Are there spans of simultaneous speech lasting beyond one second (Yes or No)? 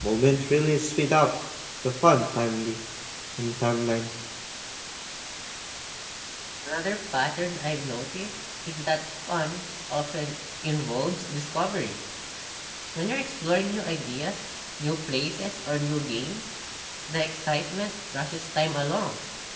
No